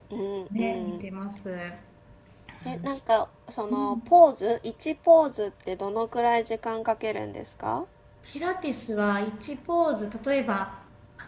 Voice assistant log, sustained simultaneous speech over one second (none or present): none